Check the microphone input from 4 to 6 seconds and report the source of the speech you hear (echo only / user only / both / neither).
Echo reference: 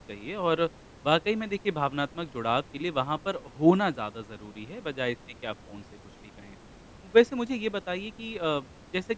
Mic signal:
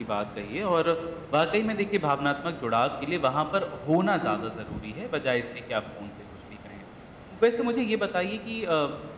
echo only